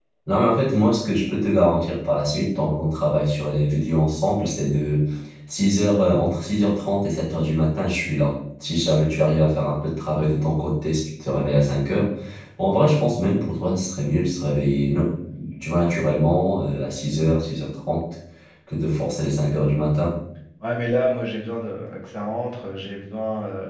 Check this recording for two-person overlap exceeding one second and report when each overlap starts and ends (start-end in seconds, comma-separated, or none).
none